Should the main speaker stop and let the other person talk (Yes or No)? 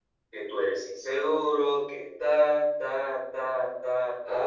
Yes